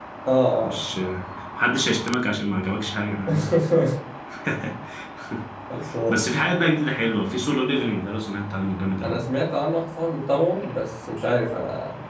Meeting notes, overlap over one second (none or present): none